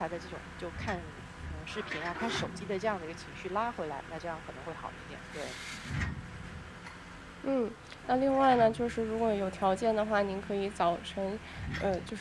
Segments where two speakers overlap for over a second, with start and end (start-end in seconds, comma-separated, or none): none